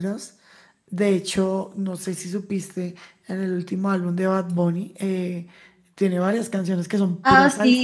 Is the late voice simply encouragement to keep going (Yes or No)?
No